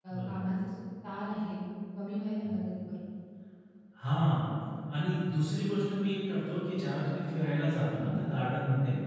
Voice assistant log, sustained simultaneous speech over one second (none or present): none